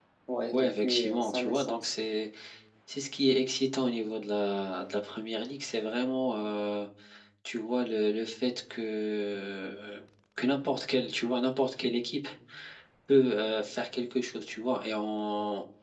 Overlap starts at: 0.5 s

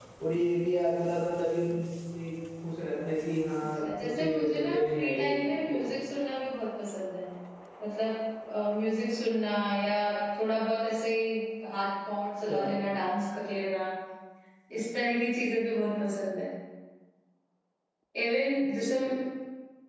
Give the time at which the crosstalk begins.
3.6 s

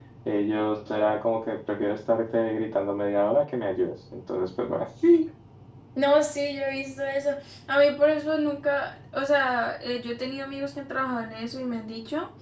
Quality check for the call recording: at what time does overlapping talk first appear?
none

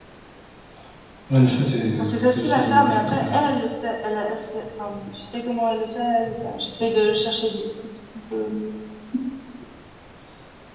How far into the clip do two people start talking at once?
2.0 s

